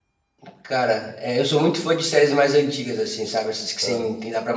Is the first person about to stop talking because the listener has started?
No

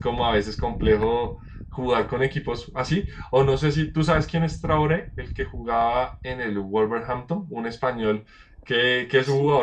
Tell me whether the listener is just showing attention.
Yes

